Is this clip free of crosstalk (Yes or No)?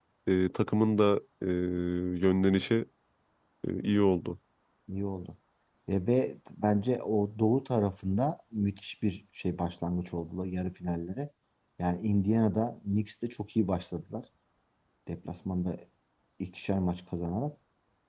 Yes